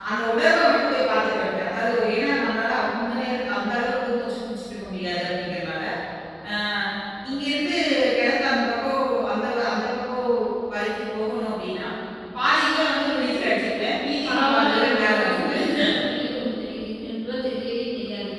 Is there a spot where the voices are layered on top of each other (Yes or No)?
Yes